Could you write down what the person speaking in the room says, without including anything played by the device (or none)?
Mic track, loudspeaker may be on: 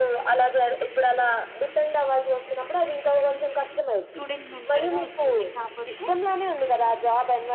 స్టూడెంట్ మెంటర్‌గా వచ్చింది. కాపోతే